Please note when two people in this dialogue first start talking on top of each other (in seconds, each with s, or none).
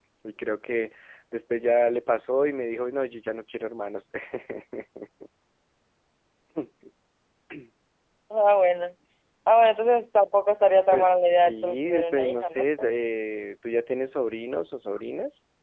10.9 s